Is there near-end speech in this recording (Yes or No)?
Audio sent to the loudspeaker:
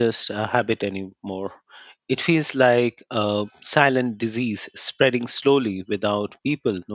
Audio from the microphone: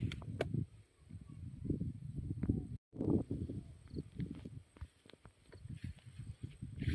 No